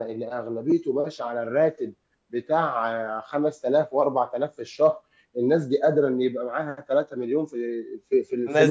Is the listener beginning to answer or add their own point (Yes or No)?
Yes